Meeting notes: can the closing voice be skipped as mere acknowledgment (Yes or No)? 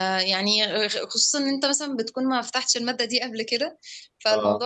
Yes